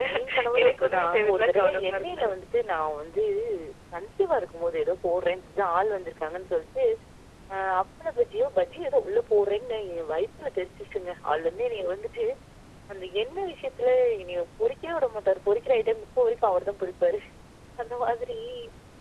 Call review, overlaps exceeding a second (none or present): present